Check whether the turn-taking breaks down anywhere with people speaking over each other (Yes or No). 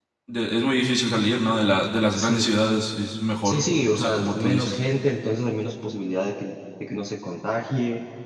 Yes